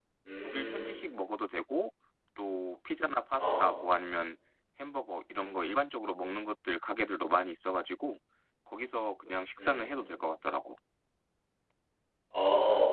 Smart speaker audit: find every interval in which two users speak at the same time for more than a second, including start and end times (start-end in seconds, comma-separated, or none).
none